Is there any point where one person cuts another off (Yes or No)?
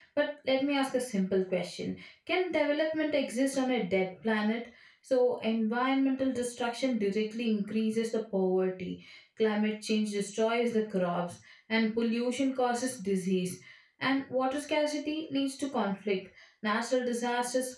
No